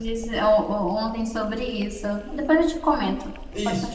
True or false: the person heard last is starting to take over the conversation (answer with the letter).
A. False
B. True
B